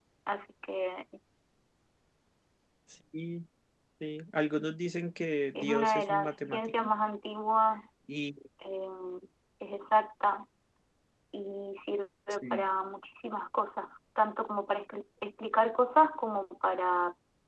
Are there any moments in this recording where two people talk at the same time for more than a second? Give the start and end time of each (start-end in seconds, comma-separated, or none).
5.5-6.9